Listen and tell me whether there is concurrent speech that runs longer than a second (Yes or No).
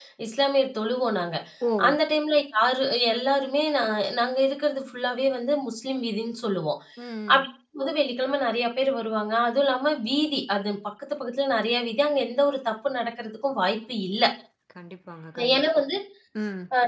No